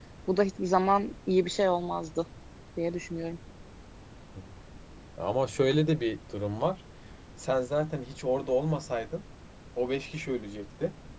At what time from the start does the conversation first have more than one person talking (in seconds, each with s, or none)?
none